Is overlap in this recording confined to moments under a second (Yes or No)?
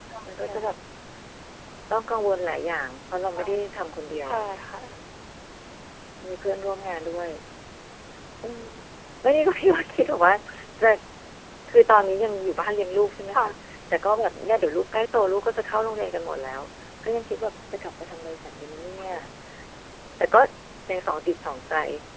Yes